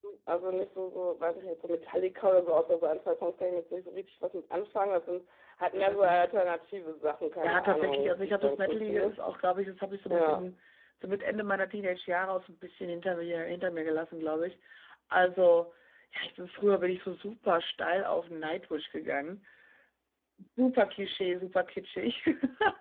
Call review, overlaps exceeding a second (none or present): present